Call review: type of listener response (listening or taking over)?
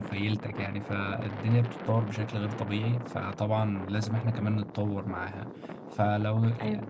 listening